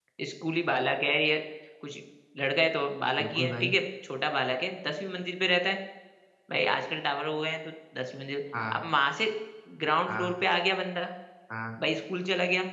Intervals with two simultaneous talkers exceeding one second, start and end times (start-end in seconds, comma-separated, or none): none